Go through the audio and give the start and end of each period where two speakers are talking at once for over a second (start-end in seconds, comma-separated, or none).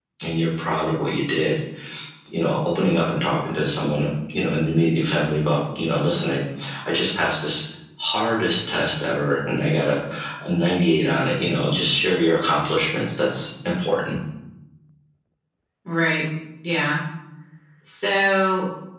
none